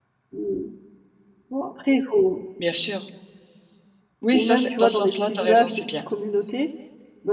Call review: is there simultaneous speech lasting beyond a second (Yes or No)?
Yes